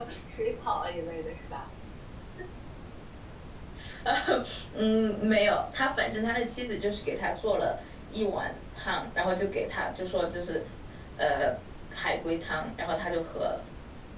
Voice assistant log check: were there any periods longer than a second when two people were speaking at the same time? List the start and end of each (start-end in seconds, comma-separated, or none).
none